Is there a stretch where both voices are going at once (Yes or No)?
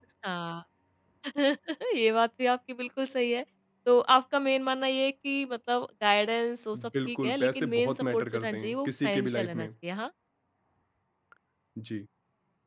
Yes